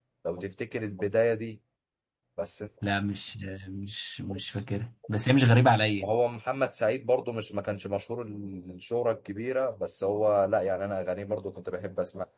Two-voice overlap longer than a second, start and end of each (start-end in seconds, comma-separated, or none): none